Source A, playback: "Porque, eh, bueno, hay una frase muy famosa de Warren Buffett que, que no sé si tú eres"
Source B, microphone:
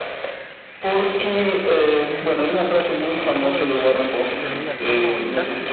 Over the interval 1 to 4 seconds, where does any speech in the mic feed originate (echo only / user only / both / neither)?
both